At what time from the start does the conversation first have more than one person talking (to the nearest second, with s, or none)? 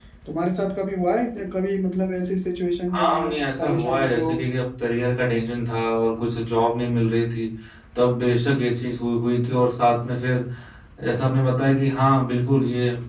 3 s